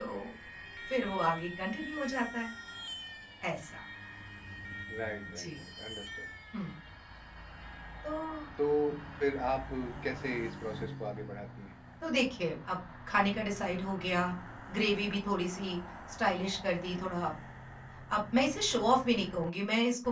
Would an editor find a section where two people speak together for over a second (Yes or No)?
No